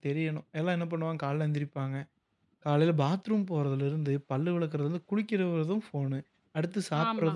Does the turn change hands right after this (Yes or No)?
No